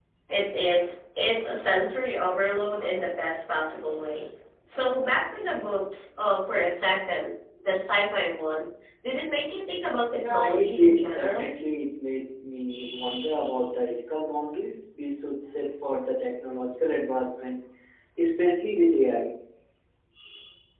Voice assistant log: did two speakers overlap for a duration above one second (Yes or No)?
Yes